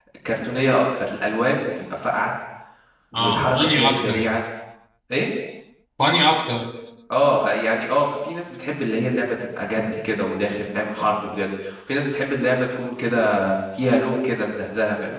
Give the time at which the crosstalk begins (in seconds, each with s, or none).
3.2 s